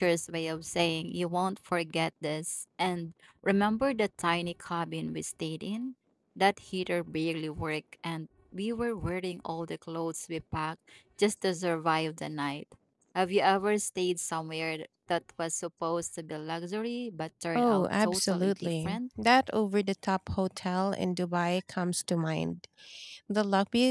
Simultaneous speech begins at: 18 s

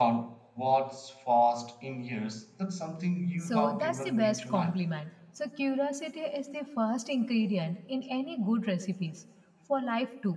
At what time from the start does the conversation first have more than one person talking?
3 s

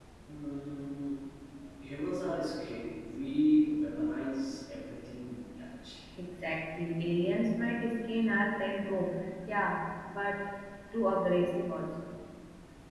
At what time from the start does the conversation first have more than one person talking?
none

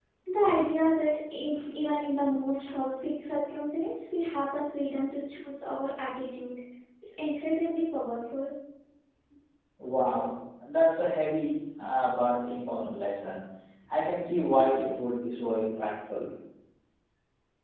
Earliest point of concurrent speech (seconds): none

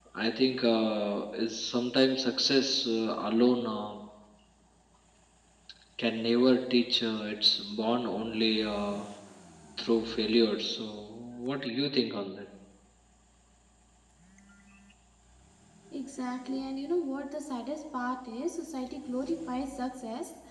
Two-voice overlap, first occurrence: none

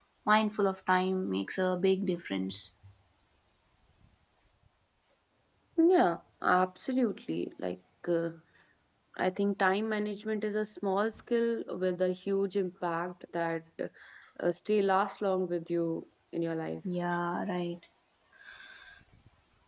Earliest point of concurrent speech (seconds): none

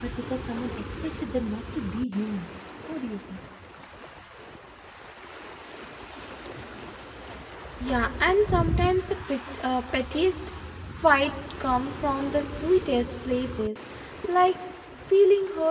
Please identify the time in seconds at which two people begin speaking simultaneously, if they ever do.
none

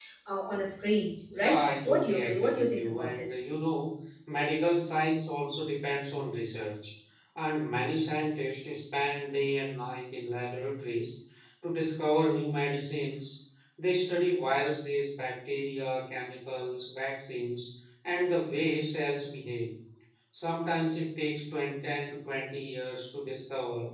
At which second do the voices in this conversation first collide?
1 s

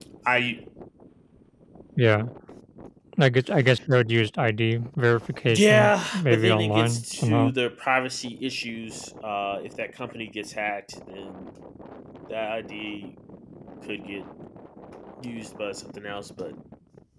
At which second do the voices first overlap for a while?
5 s

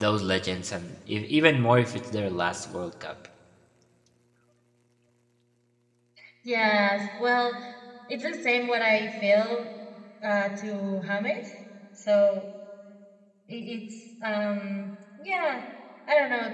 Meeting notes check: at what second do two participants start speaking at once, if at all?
none

